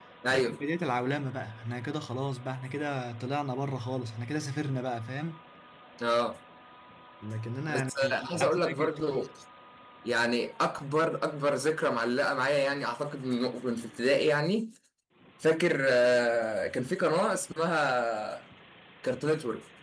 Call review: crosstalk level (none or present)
present